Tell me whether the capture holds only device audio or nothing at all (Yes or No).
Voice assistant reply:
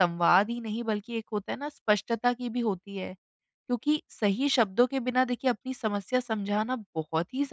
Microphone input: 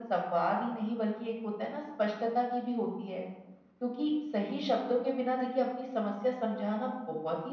Yes